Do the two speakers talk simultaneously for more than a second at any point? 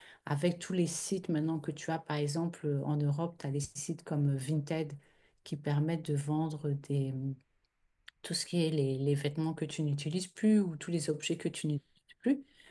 No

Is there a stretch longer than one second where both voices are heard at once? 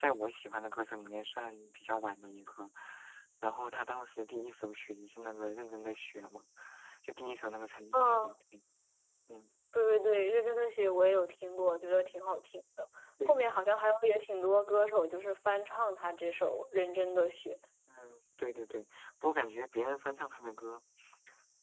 No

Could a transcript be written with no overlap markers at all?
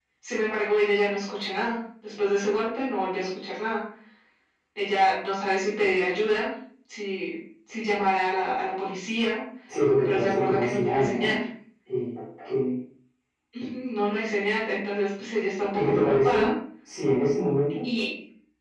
No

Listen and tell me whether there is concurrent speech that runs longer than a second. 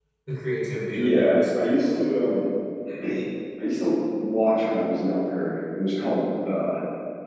Yes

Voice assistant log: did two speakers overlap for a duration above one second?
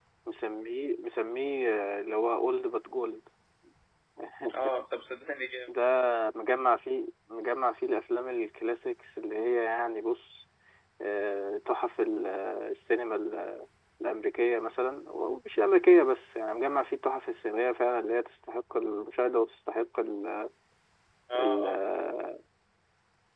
No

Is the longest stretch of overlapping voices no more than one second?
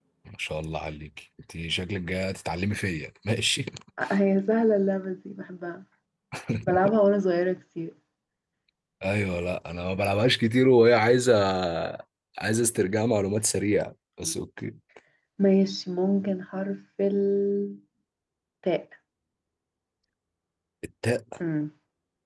Yes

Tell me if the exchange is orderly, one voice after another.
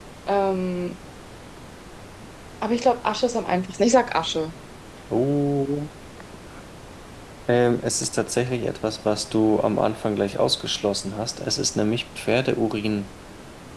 Yes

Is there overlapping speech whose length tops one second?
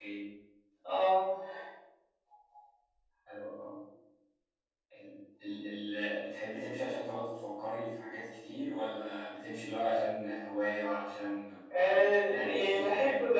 Yes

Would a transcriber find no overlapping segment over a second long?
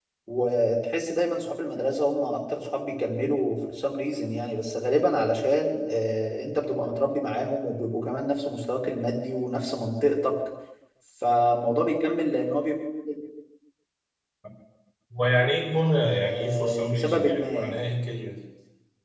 No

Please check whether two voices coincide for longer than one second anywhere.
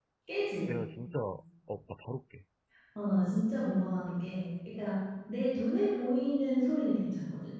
No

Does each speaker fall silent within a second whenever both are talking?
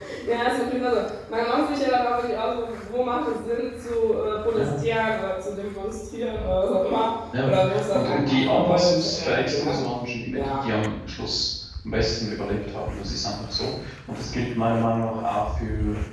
No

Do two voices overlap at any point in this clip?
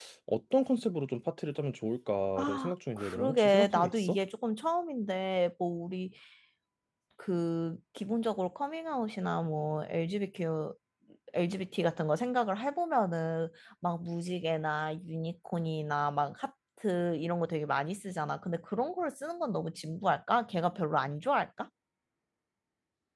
Yes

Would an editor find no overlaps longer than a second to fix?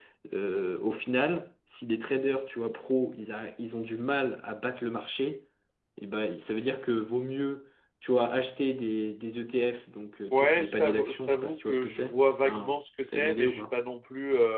No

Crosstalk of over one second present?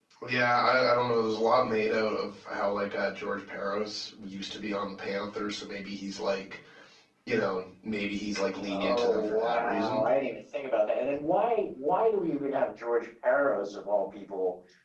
Yes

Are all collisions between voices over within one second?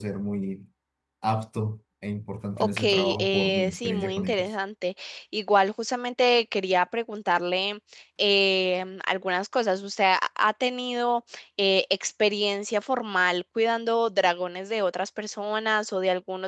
No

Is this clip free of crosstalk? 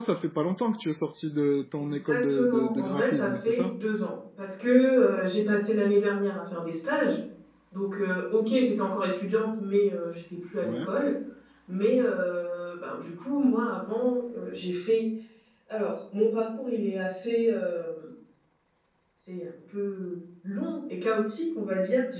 No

